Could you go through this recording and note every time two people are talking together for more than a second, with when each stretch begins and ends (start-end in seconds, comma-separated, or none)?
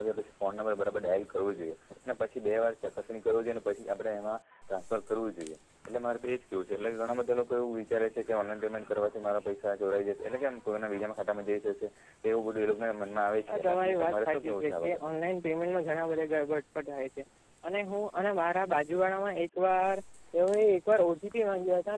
13.5-15.1